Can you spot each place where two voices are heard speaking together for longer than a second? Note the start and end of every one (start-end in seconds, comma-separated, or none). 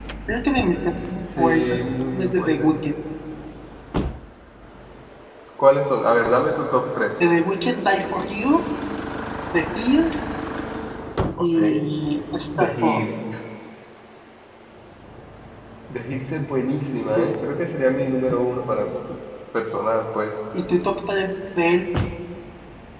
1.2-2.7